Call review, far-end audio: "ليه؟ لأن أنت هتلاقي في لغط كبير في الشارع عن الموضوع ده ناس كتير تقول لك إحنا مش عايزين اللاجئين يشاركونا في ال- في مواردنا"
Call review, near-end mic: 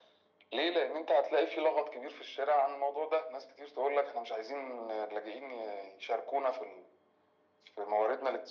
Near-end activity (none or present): none